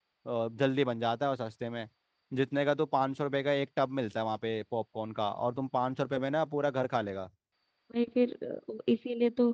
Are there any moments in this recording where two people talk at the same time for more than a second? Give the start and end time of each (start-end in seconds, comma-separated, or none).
none